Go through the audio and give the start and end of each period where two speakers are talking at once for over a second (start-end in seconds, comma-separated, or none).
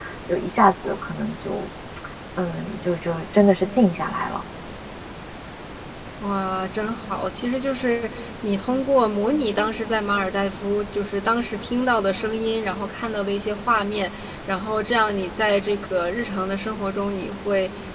none